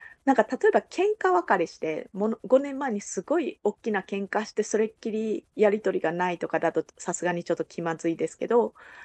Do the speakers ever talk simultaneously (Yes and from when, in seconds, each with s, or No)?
No